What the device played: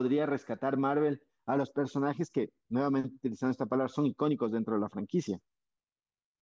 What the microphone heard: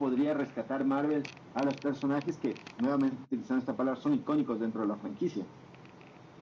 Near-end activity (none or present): none